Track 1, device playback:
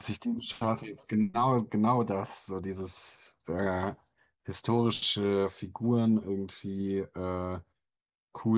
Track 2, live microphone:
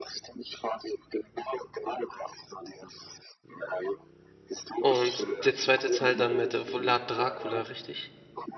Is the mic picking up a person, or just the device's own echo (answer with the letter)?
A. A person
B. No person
A